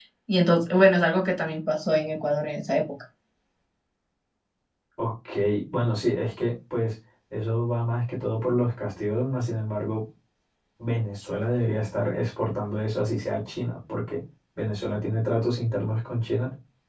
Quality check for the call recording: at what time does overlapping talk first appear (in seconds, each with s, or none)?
none